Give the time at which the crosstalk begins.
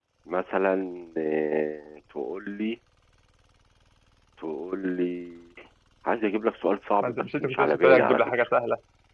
7.0 s

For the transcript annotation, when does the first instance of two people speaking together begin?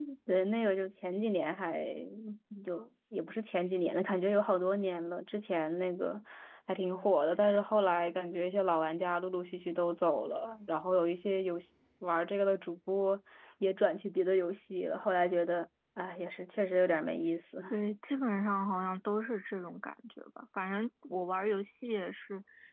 none

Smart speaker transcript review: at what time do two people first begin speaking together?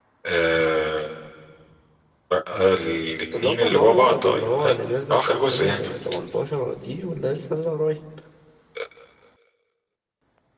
3.3 s

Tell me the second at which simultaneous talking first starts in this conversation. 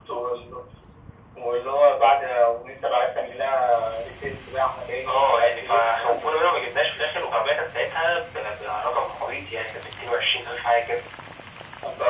5.0 s

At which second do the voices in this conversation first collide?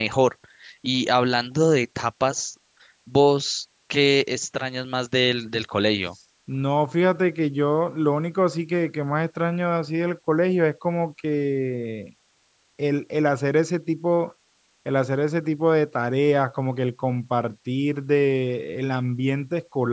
none

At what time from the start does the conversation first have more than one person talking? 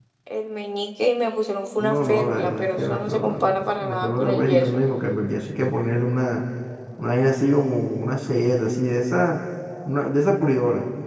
1.8 s

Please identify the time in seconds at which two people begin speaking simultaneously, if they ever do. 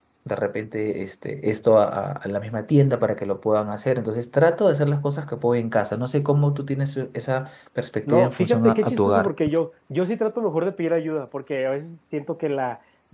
8.1 s

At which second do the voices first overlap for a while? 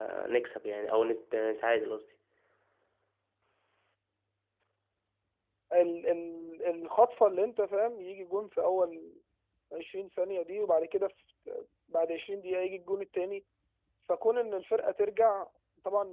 none

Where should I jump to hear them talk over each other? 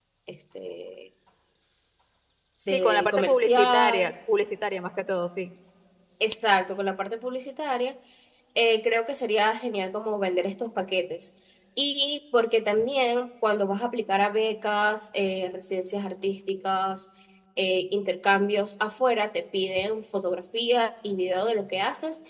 2.7 s

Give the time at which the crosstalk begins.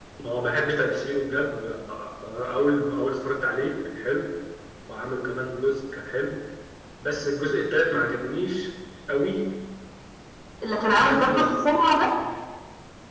10.8 s

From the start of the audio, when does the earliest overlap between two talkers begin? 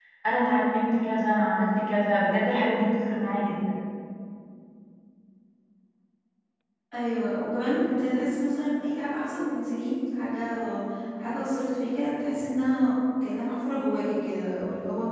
none

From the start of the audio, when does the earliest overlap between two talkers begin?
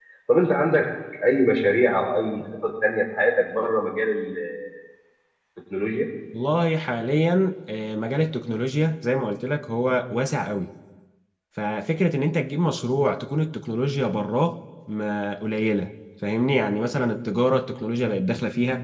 none

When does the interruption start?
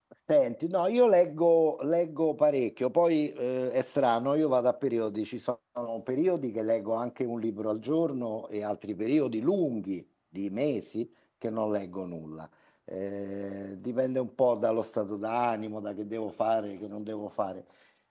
none

